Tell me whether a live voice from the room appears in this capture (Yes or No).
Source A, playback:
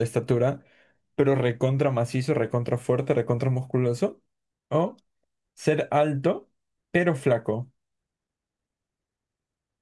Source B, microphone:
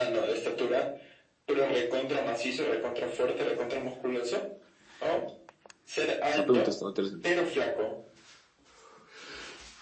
Yes